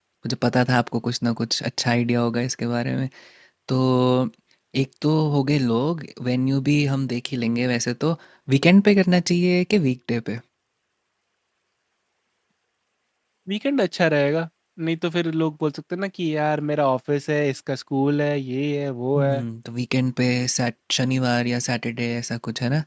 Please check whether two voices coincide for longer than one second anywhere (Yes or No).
No